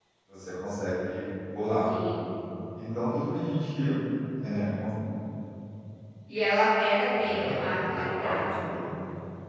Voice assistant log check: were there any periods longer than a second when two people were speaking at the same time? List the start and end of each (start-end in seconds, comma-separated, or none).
7.2-8.6